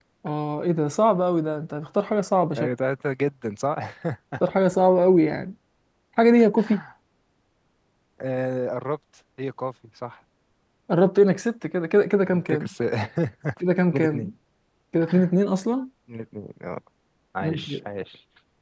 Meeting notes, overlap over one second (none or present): none